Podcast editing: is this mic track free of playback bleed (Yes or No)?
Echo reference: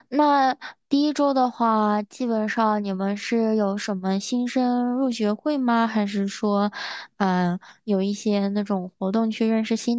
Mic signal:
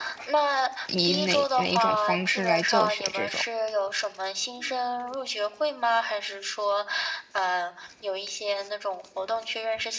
No